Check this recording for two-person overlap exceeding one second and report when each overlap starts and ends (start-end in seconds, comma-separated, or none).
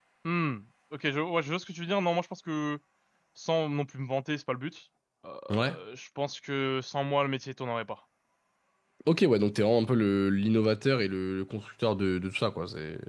none